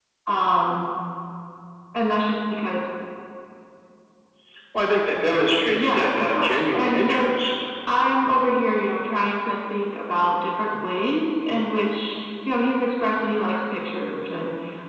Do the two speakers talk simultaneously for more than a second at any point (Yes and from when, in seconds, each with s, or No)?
Yes, from 5.6 s